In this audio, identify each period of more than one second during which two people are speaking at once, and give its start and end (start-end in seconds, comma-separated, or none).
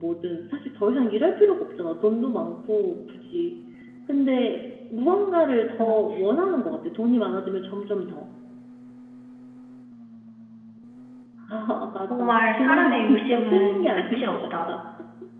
12.1-14.5